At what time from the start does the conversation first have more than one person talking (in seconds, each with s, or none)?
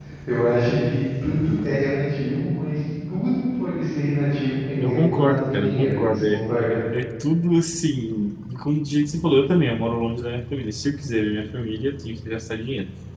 4.8 s